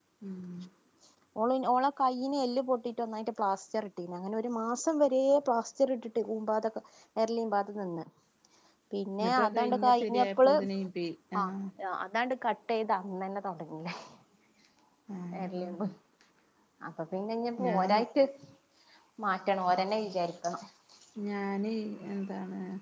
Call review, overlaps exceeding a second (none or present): present